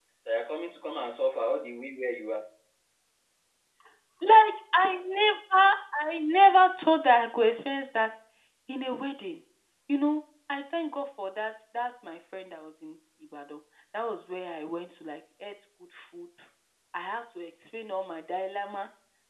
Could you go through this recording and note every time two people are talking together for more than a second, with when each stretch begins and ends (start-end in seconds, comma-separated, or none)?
none